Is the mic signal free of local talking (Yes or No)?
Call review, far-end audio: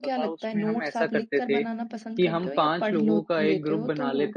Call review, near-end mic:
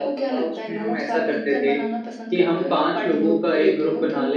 Yes